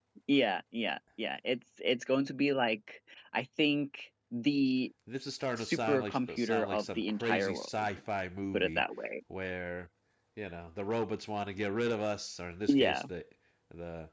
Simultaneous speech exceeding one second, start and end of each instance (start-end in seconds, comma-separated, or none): 5.6-7.7